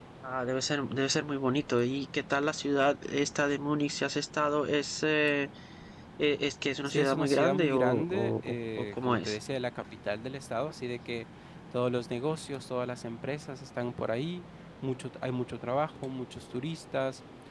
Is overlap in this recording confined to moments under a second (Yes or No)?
No